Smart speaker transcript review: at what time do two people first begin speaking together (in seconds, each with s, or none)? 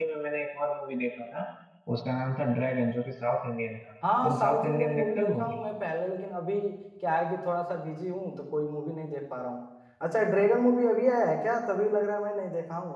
4.0 s